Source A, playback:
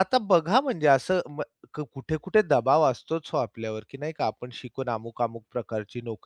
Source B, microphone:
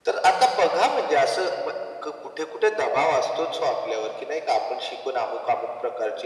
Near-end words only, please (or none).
none